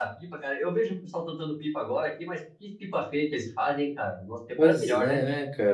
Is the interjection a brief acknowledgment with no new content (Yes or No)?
No